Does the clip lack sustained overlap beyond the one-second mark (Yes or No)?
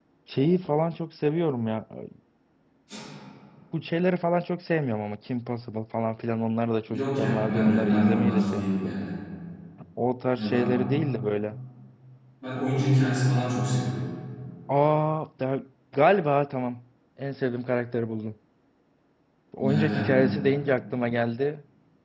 No